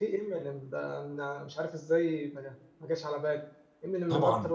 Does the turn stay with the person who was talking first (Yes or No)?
Yes